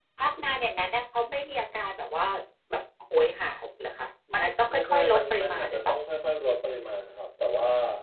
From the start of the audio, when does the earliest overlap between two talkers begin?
4.7 s

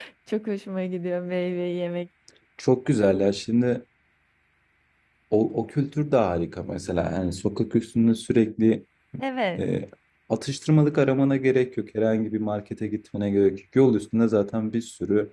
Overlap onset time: none

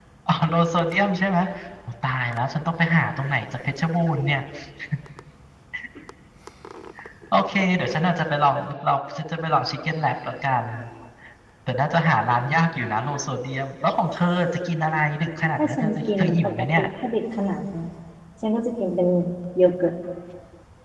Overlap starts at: 15.6 s

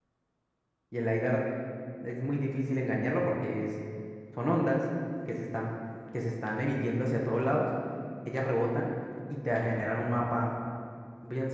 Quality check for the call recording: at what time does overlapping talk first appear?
none

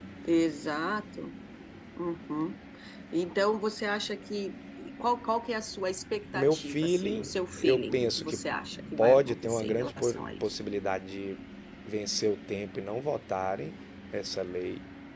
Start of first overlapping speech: 6.3 s

